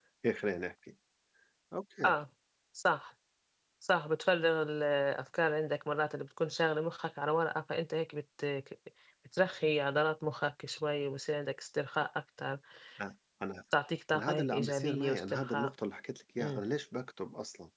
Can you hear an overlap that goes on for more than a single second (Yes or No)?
Yes